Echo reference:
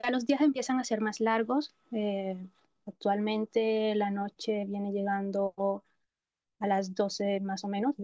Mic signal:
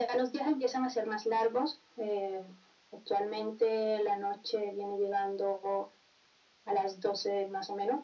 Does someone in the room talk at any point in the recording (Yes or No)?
No